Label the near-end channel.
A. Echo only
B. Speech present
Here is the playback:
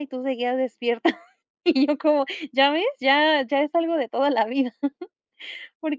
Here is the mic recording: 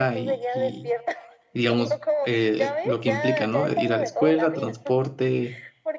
B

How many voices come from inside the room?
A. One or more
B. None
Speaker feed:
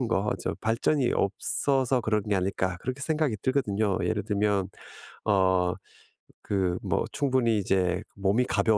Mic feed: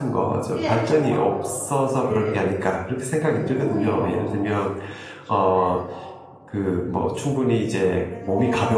A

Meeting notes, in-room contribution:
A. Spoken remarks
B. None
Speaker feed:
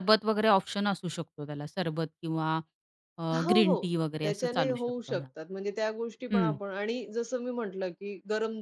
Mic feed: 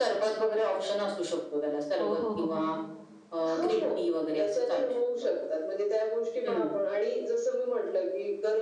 A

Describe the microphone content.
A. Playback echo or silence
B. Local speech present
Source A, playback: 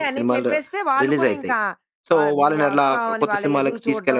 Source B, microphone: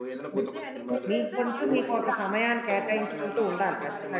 B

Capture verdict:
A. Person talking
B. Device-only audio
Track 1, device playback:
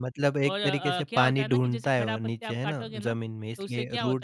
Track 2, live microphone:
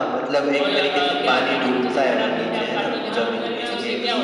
A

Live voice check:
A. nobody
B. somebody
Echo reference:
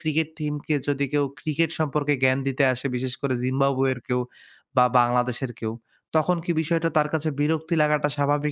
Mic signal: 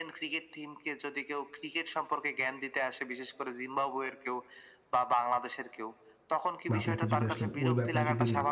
B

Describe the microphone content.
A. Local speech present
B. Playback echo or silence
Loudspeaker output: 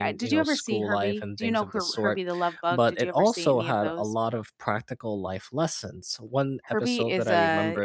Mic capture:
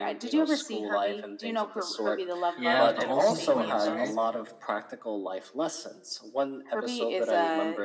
A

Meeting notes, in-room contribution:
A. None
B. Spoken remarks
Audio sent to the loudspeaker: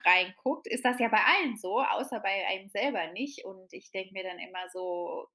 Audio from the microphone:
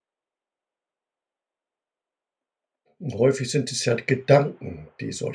B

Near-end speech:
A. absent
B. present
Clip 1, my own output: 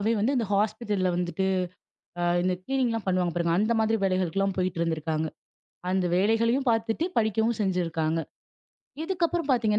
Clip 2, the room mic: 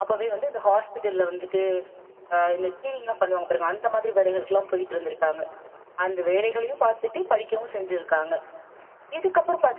A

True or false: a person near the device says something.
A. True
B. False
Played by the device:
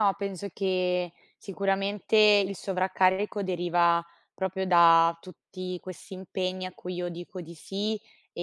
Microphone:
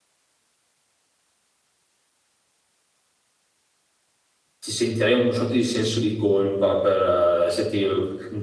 A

